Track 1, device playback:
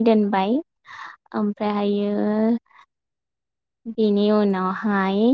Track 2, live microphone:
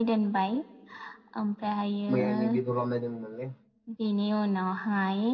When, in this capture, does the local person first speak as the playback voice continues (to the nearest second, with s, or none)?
2 s